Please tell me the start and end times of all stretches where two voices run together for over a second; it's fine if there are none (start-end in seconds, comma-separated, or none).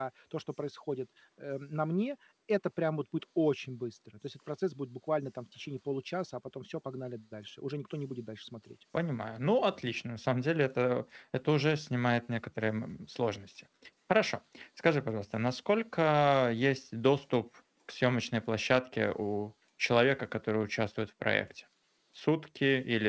none